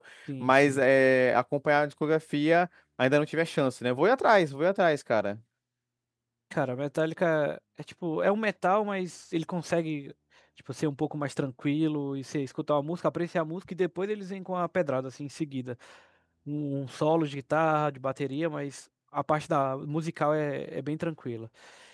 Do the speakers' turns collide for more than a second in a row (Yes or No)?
No